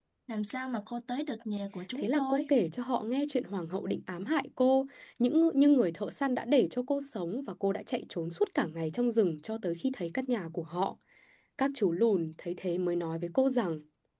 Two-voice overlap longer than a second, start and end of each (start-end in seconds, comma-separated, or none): none